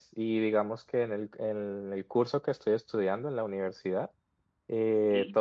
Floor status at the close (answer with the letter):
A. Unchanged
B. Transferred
A